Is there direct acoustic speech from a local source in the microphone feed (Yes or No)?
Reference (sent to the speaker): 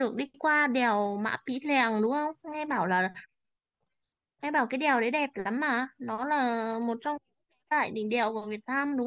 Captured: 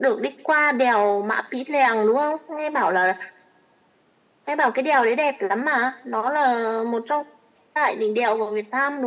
No